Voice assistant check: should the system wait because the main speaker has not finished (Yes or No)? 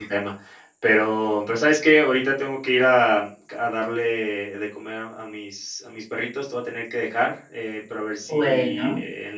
Yes